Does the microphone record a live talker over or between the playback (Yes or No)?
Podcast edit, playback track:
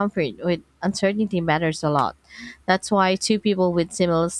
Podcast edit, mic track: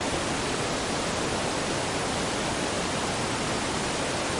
No